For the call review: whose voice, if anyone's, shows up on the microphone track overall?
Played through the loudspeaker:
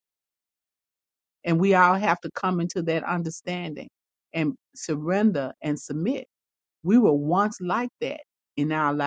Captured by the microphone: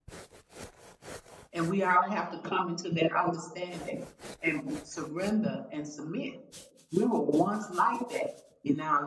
echo only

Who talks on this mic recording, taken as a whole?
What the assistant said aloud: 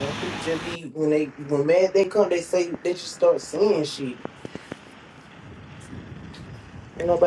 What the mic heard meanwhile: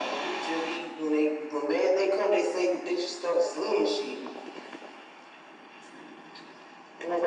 echo only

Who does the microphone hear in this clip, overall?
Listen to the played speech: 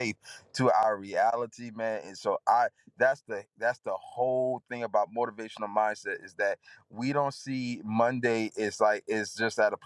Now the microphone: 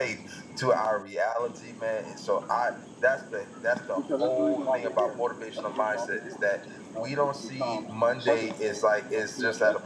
both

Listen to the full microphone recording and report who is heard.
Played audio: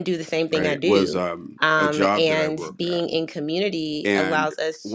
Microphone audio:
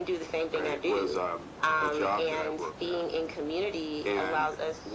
echo only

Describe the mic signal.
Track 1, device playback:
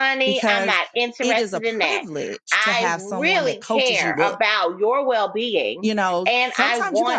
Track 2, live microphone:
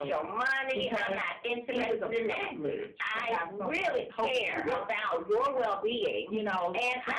echo only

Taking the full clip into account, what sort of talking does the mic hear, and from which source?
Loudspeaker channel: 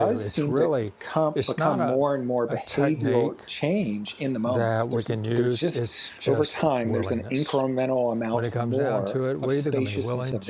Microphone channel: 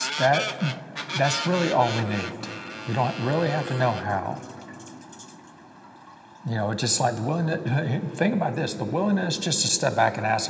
user only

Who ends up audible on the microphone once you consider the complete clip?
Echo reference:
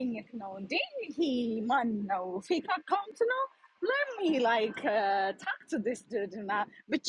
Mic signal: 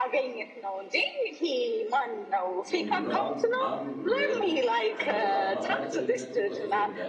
both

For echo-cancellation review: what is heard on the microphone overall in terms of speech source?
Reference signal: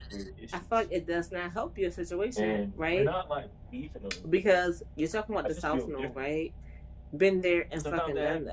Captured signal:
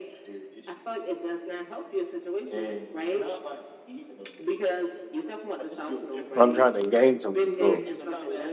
both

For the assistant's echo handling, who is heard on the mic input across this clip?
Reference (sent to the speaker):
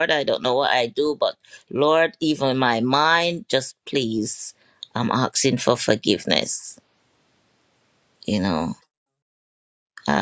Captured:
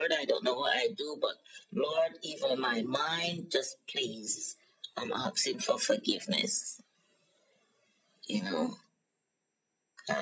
echo only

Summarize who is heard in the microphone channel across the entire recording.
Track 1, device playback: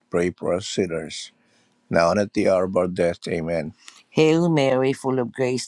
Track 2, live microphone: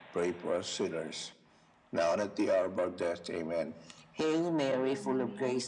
both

